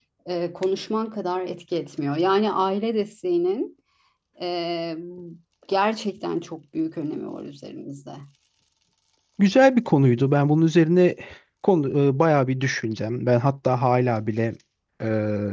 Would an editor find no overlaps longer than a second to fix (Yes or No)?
Yes